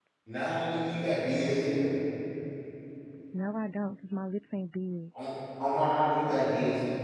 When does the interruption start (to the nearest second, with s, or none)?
none